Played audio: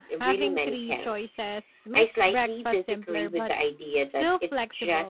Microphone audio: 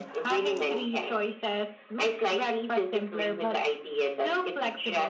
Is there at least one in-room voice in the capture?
No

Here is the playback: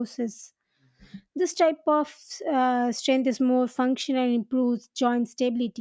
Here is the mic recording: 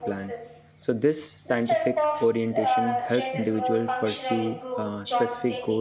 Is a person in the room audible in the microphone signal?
Yes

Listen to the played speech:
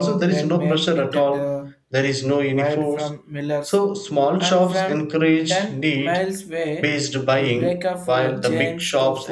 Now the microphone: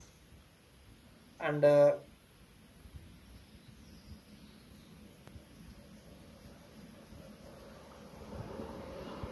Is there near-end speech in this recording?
Yes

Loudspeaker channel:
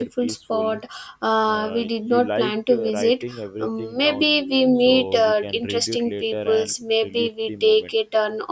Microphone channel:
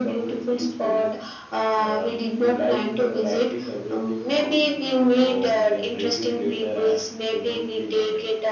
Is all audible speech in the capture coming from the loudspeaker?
Yes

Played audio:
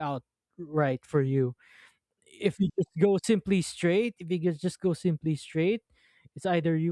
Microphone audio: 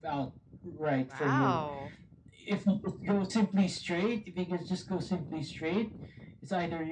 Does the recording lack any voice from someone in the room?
No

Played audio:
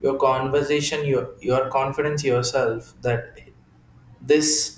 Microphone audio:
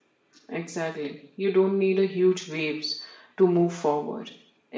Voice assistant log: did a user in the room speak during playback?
Yes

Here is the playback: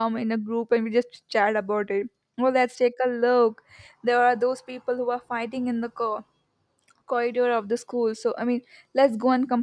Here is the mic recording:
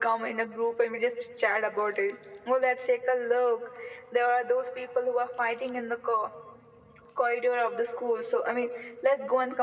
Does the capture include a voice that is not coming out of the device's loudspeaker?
No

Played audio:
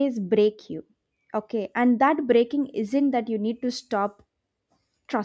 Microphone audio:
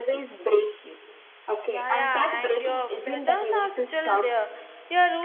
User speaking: Yes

